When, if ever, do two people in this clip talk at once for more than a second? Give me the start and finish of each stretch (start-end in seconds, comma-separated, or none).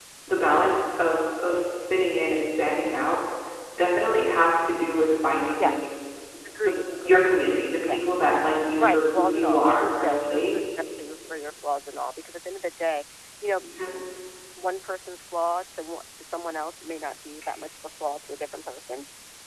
8.8-10.6